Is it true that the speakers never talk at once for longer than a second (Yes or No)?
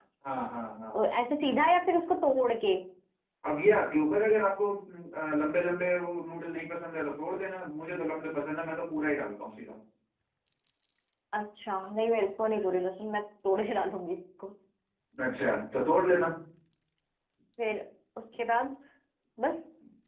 Yes